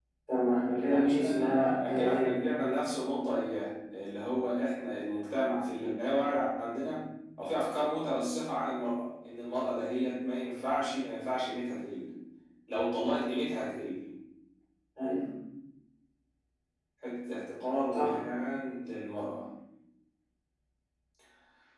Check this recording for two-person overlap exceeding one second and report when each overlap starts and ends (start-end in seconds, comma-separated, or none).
0.8-2.3